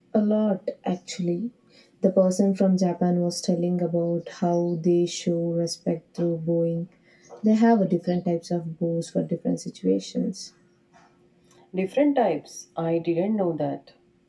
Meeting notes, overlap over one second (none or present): none